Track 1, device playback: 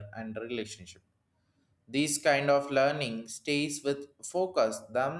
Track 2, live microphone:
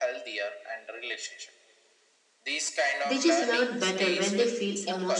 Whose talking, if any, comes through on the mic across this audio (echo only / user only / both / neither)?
both